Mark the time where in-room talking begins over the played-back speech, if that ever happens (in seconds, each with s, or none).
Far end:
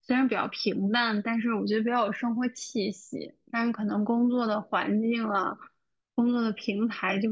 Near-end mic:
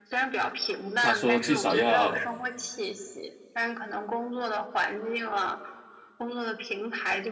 1.0 s